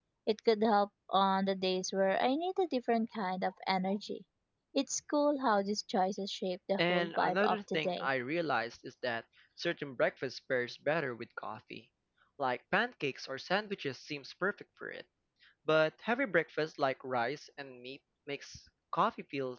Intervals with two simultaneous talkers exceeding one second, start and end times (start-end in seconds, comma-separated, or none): 6.8-8.1